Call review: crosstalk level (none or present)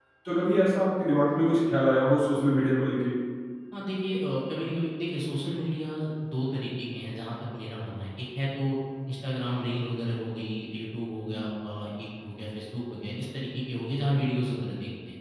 none